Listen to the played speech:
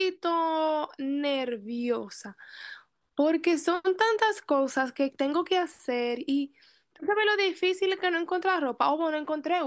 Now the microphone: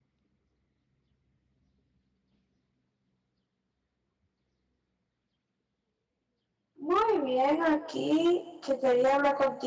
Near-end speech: present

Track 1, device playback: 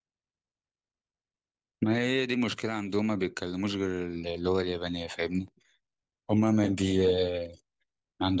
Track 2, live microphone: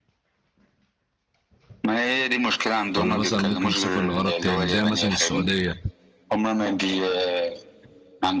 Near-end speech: present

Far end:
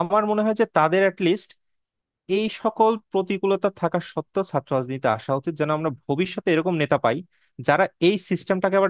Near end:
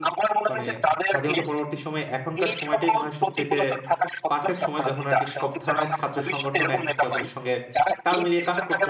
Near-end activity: present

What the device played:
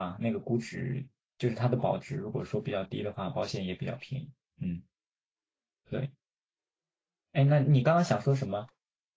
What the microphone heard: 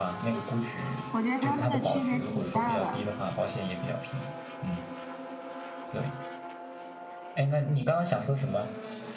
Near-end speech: present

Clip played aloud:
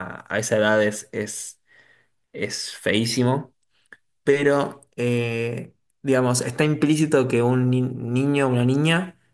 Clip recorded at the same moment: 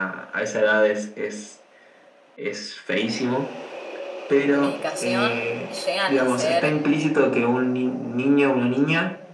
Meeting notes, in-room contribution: present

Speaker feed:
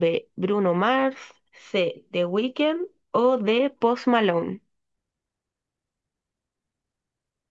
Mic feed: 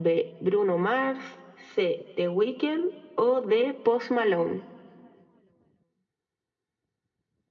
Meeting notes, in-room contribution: none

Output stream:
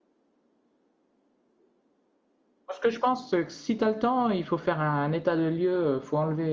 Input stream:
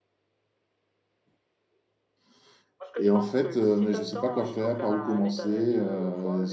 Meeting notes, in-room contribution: present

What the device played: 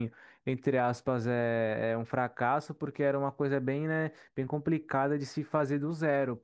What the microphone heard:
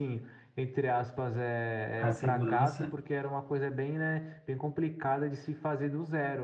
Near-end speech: present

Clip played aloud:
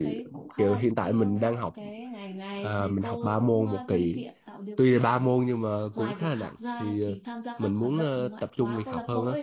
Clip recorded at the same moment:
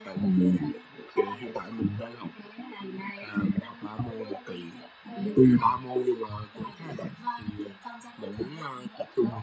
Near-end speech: present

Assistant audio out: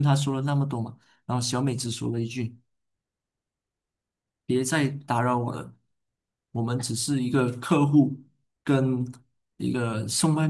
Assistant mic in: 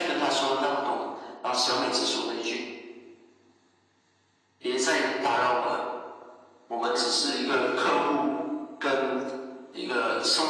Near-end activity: none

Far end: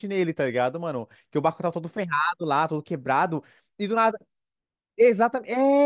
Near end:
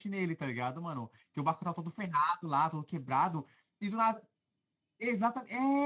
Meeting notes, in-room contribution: none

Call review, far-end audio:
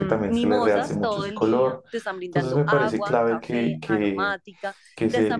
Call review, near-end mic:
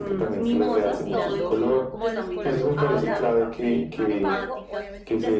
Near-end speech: present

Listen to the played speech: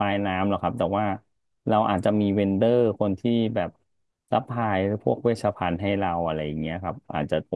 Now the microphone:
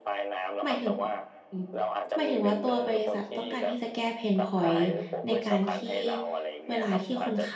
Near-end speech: present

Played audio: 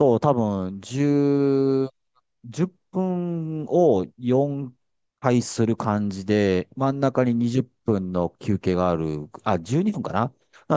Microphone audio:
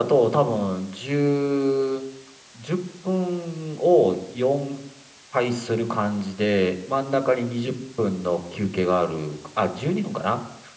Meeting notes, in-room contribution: none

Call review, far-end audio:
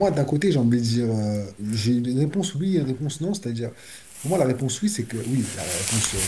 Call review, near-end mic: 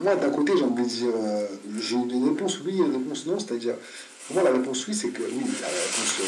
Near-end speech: none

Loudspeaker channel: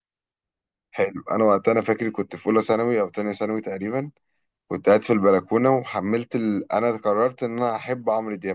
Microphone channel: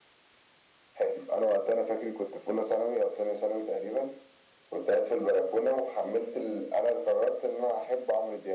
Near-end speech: none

